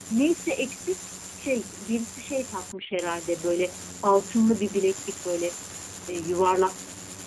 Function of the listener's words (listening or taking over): listening